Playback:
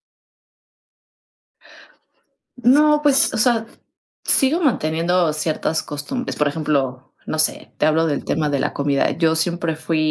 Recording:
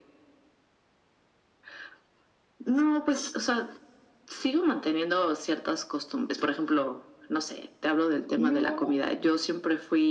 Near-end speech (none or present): present